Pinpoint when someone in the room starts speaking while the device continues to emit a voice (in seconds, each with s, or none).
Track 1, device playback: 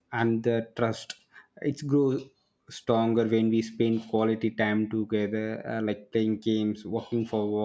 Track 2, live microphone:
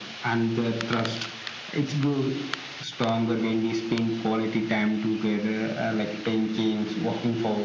none